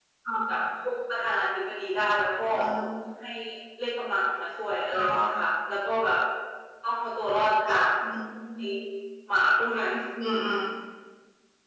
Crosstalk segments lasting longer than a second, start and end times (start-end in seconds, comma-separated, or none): none